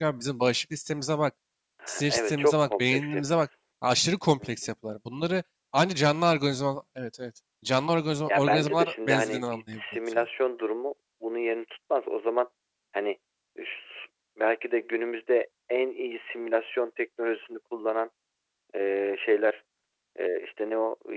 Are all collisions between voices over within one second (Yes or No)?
No